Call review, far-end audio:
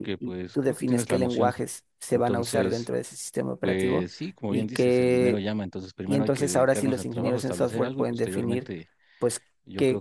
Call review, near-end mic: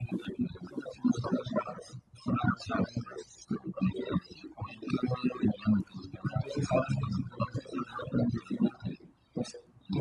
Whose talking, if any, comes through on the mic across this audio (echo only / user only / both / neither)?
echo only